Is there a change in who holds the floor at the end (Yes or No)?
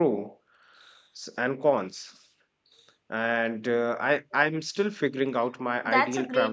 Yes